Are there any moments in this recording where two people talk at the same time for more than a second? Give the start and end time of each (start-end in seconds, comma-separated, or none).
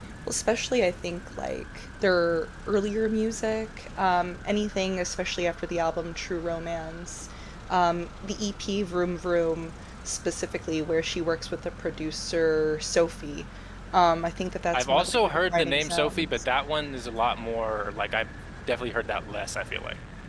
14.7-16.5